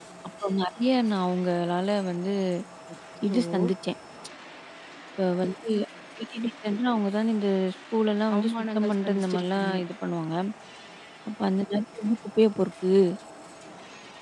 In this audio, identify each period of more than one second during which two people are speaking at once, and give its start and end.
8.4-9.8

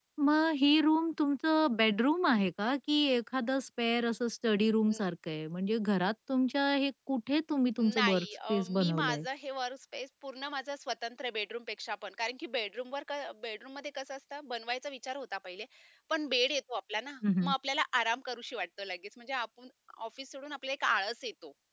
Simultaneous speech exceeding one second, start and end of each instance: 7.8-9.2

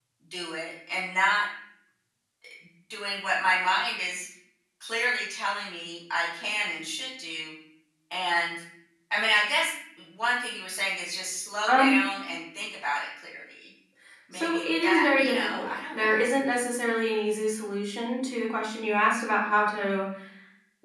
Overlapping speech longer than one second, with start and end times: 14.3-16.3

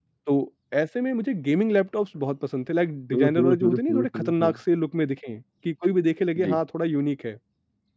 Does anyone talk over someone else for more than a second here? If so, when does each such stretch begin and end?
3.1-4.5

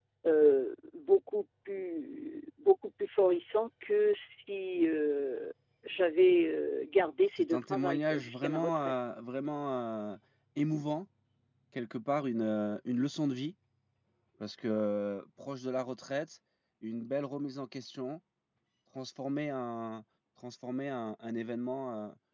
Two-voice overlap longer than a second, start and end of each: 7.4-8.9

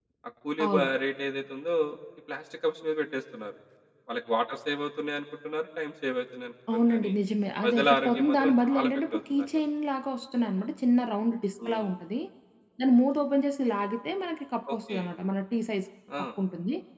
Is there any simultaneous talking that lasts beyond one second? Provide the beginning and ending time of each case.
7.6-9.4

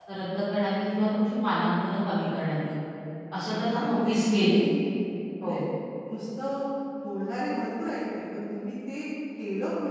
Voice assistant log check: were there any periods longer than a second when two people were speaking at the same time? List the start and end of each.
3.4-4.6

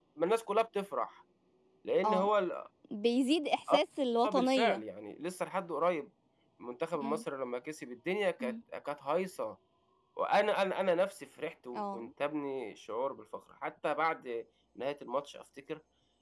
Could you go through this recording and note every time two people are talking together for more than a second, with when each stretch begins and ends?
none

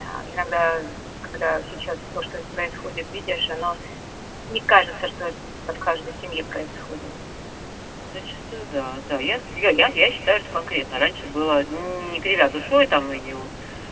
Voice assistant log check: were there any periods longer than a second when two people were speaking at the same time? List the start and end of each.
none

